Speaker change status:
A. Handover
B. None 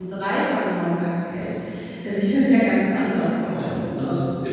A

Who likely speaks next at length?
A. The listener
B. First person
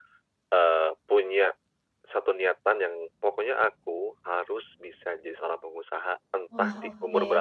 B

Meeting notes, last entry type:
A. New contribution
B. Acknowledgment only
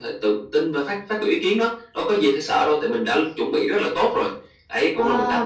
A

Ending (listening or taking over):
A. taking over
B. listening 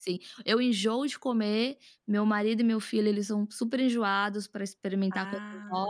B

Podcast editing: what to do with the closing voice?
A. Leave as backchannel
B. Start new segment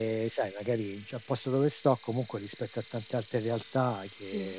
A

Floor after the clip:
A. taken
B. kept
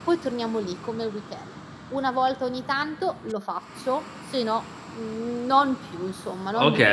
A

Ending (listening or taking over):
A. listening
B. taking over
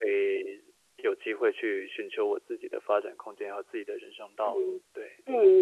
B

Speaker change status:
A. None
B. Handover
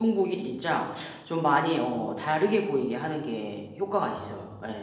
B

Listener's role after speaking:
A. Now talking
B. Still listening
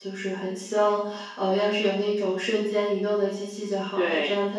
B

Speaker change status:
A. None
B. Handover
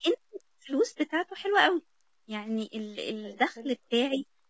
A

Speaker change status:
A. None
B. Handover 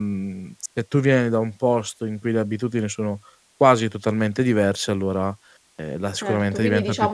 B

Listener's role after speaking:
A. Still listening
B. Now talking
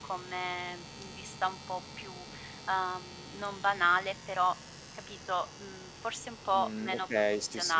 B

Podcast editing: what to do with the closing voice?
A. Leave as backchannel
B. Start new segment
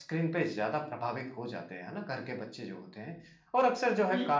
A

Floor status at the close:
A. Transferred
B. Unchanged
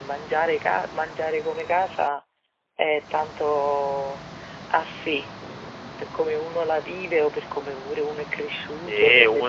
A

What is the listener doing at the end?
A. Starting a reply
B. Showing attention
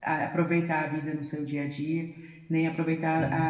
B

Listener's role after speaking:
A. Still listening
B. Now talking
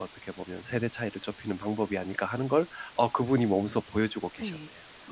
B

